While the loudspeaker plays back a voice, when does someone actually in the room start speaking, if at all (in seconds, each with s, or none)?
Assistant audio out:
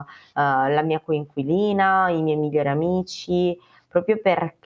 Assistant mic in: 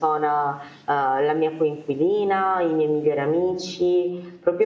none